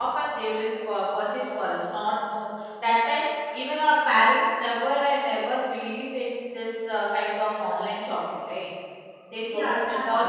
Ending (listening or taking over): taking over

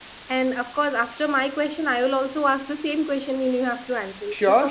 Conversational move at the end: taking over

